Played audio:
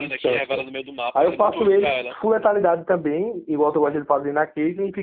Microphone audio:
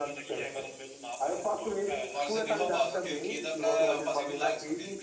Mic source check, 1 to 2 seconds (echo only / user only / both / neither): echo only